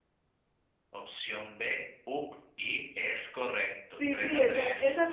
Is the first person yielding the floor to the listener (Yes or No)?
Yes